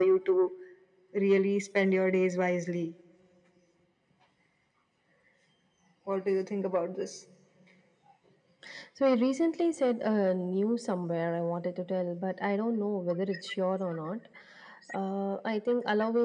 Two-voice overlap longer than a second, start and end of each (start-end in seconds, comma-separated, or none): none